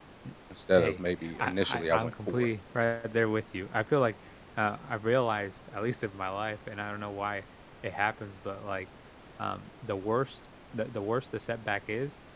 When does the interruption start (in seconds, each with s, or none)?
0.8 s